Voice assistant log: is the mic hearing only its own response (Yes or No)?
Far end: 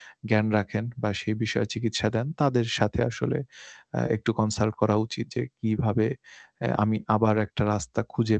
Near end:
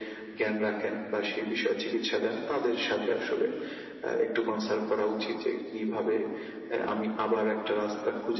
Yes